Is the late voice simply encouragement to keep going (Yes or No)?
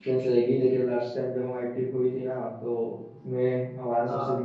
Yes